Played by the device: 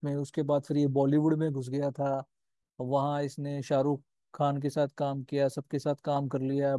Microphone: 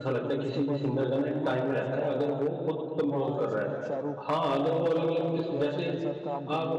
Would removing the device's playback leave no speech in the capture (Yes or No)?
No